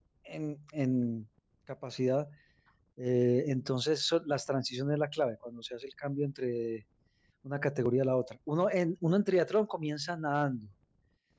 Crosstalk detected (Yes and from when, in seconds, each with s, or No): No